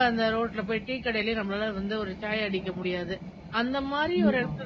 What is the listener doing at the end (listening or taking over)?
listening